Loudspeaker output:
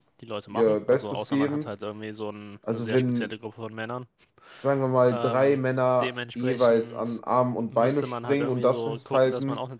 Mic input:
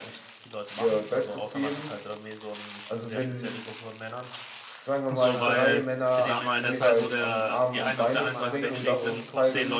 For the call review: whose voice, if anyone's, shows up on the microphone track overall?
both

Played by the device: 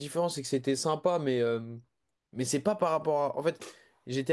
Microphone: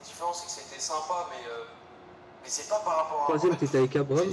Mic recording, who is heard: both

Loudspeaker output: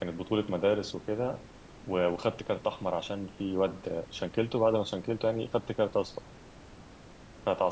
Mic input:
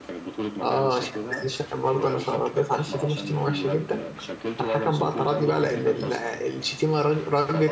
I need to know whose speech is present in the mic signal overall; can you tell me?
both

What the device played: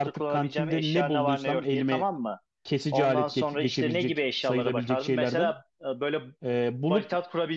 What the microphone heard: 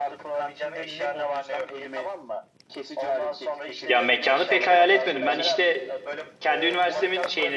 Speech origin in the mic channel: both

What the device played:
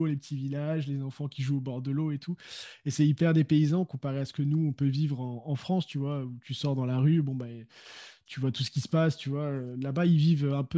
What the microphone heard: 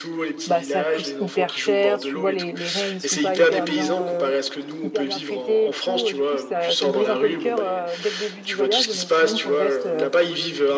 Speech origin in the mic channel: both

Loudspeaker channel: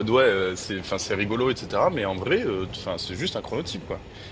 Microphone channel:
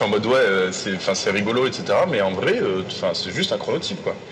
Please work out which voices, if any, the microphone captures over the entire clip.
echo only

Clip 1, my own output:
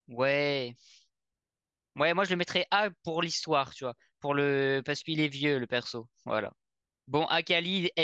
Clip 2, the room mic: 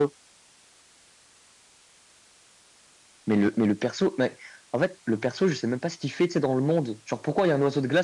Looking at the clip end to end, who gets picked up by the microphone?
user only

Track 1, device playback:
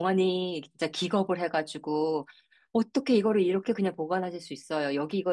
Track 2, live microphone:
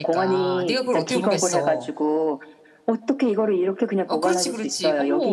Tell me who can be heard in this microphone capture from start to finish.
both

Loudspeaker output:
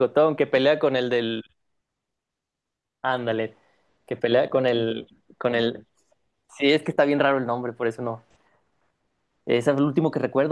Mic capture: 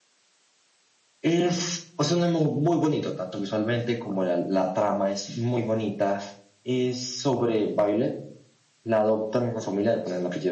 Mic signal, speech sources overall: user only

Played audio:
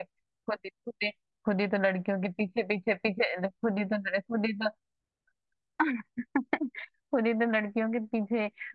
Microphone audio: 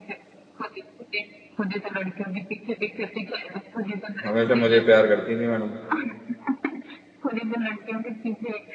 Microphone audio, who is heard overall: both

